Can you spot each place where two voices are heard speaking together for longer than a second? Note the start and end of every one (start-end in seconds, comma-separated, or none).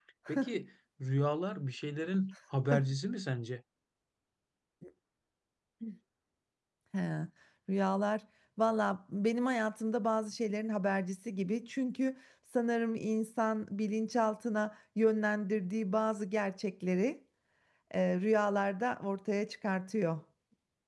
none